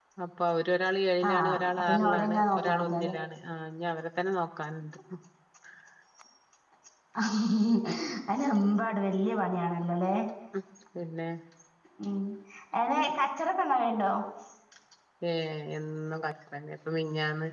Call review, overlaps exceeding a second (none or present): present